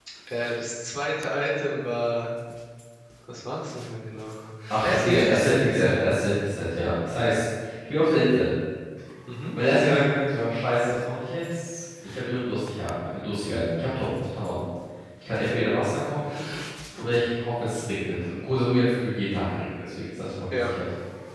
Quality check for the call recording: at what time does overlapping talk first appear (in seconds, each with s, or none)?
4.8 s